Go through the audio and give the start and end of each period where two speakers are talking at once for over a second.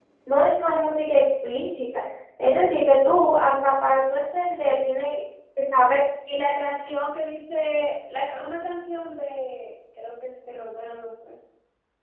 none

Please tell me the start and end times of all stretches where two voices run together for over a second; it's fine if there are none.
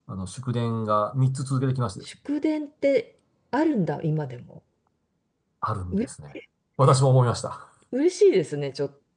none

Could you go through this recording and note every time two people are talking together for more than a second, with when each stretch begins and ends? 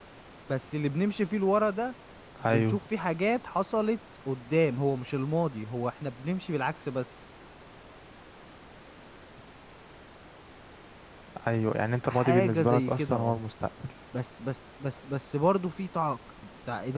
12.1-13.4

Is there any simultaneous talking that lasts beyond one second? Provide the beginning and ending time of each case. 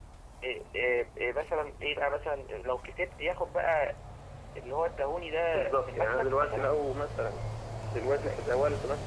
5.5-6.7

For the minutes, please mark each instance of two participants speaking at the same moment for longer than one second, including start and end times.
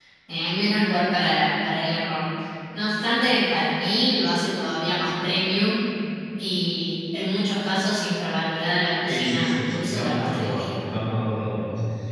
9.1-11.0

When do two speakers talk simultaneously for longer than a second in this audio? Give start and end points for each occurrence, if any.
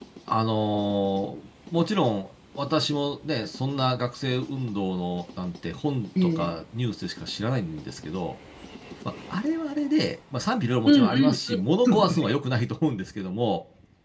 10.9-12.3

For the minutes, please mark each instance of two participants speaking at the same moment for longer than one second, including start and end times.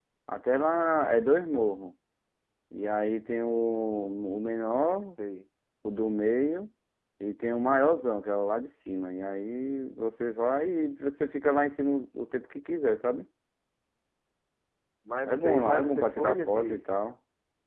15.3-16.8

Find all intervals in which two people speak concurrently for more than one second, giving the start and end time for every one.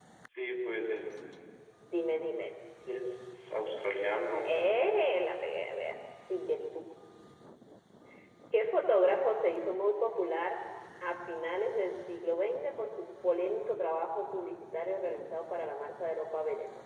none

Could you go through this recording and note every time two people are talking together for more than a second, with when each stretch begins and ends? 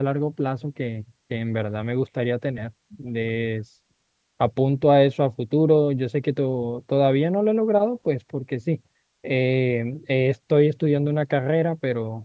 none

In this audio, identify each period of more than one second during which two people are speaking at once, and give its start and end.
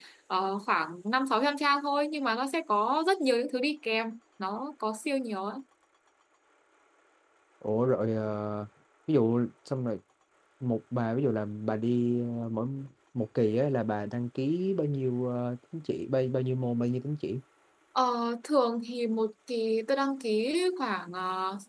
none

